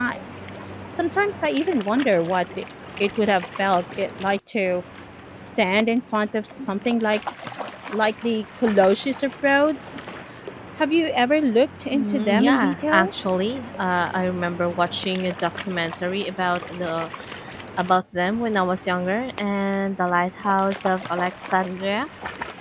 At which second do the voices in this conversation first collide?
11.9 s

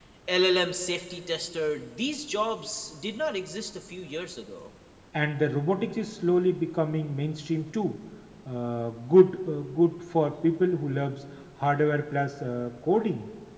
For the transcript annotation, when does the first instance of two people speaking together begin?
none

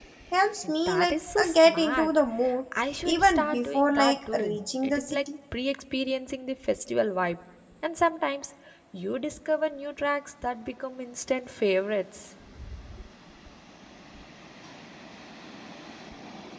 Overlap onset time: 0.9 s

